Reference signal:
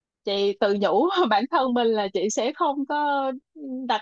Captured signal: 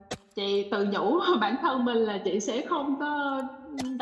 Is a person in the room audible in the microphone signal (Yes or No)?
No